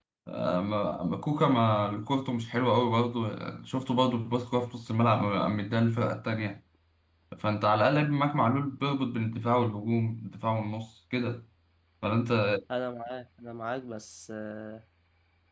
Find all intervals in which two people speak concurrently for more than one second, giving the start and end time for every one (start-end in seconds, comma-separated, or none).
none